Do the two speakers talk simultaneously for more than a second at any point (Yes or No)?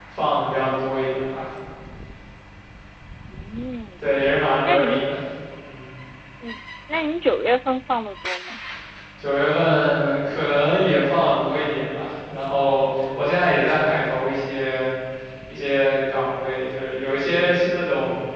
No